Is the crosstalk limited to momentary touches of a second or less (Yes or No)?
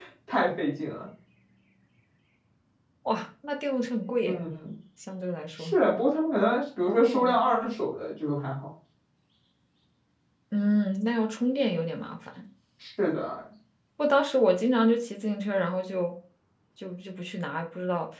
Yes